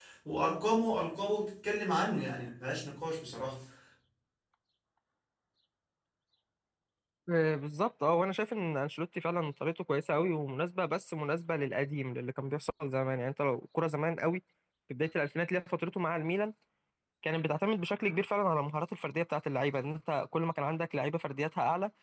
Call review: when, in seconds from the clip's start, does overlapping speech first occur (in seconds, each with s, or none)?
none